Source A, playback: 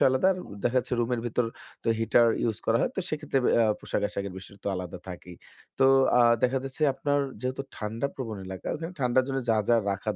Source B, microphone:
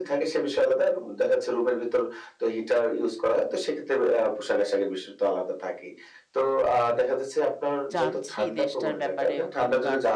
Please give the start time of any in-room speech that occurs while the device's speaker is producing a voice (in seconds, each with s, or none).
7.9 s